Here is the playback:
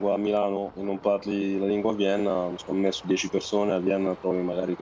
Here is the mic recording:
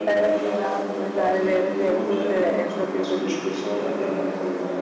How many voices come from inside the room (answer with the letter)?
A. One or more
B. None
A